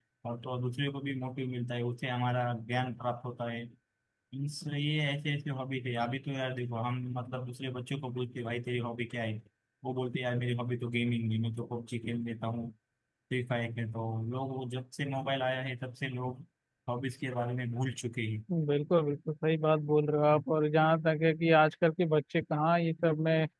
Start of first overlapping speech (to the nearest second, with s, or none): none